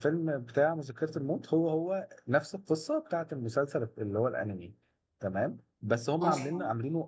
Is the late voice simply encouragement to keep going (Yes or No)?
Yes